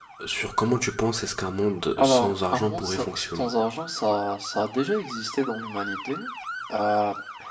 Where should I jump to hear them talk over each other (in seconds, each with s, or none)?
2.0 s